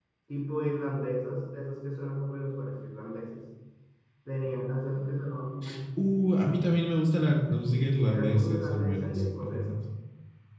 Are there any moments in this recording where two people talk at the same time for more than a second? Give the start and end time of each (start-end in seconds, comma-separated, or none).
7.7-9.7